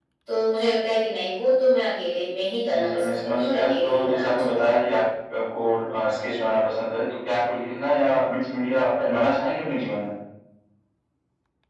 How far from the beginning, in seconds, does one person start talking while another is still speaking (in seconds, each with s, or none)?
2.7 s